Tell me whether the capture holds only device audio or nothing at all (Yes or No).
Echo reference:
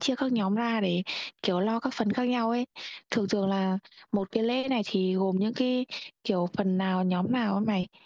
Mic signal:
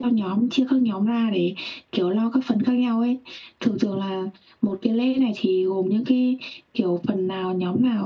Yes